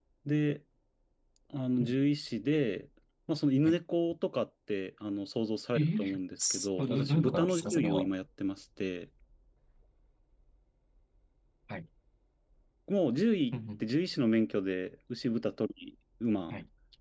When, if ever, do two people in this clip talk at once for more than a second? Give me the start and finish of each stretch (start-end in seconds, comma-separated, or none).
6.4-8.1